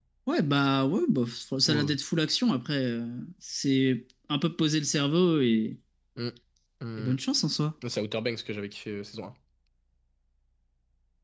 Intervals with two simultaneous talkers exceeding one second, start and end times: none

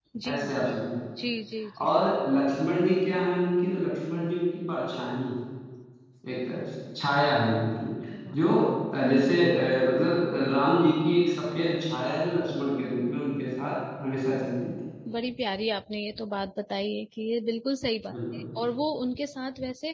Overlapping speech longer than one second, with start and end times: none

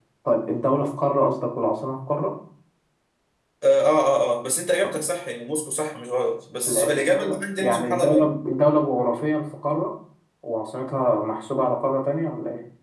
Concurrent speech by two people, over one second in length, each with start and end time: 6.7-8.3

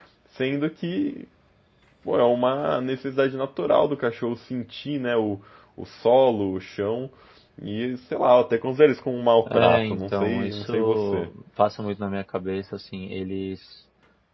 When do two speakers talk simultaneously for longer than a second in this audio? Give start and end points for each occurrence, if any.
9.5-11.3

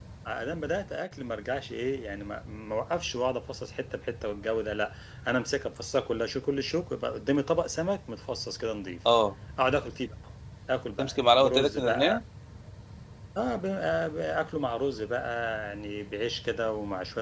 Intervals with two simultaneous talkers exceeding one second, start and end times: 11.0-12.2

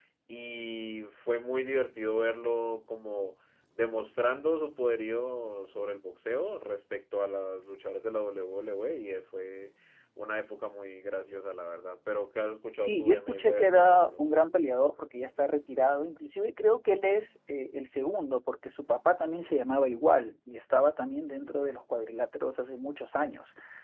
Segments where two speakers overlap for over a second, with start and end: 12.8-14.2

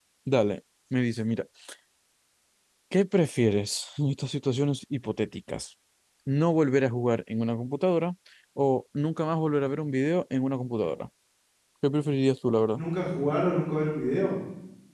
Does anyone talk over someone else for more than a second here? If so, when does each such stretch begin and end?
none

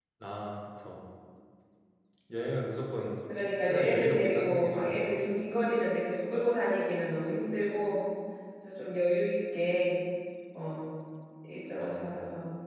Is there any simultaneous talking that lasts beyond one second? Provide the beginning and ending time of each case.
3.6-5.1

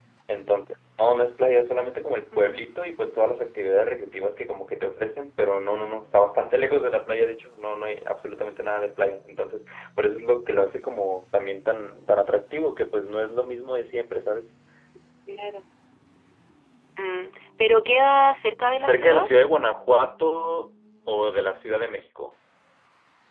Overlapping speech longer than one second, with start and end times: none

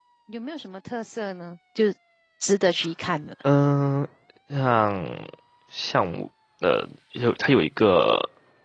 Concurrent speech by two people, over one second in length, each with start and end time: none

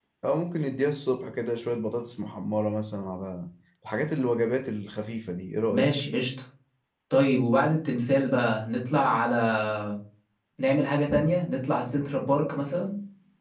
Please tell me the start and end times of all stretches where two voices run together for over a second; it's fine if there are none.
none

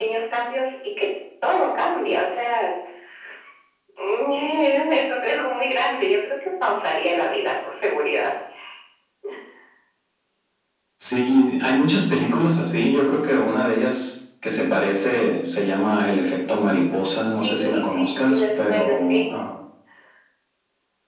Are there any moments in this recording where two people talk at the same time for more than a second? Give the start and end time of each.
17.4-19.3

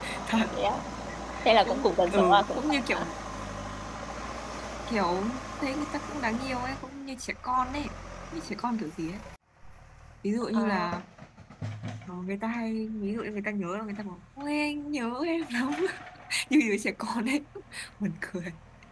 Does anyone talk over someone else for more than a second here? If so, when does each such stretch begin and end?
1.6-3.0

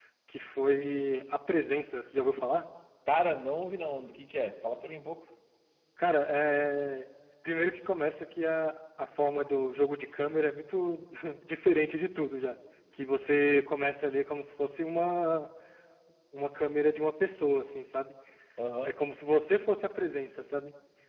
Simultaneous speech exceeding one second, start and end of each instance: none

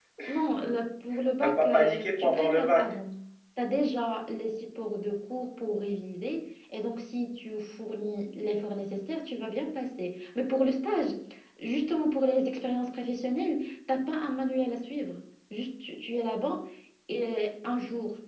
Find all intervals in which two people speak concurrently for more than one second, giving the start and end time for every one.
1.4-2.9

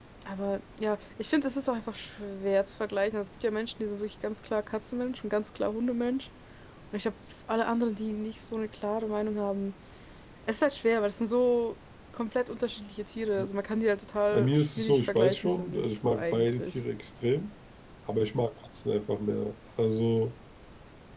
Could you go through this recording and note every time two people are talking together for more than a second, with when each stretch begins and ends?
14.3-16.8

